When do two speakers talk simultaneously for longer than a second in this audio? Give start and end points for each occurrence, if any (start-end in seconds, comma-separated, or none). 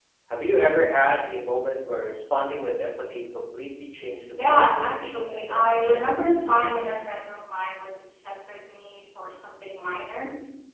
4.4-6.1